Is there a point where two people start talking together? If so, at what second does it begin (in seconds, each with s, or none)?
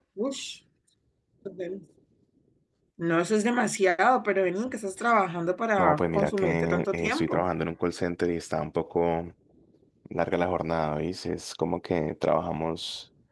5.8 s